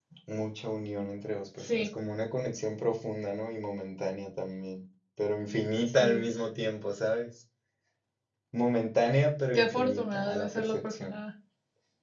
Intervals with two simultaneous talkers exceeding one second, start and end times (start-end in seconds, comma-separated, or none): 9.6-11.2